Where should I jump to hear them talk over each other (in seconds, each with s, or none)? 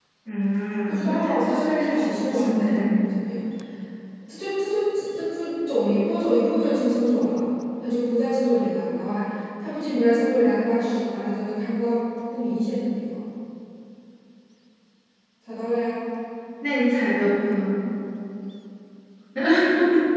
0.9 s